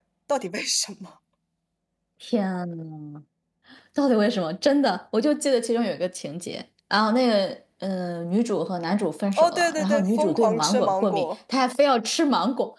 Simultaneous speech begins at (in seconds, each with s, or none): 9.4 s